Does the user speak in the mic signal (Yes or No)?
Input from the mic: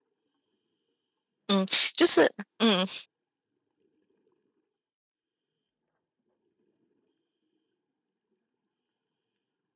Yes